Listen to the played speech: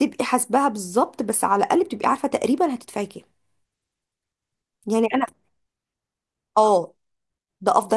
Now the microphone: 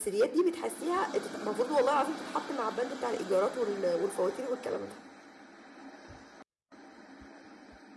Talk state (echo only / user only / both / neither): user only